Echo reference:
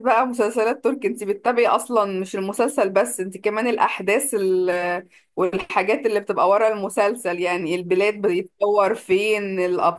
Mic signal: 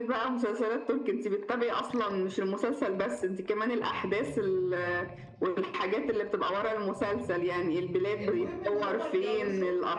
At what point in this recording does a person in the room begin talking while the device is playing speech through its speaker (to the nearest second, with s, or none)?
8 s